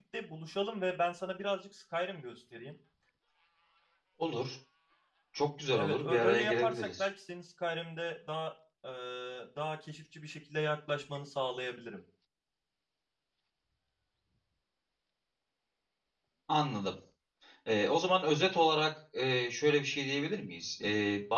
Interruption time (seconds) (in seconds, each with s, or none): 5.8 s